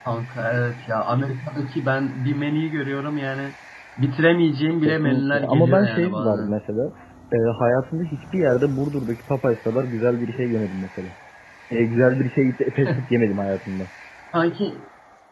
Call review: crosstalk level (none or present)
present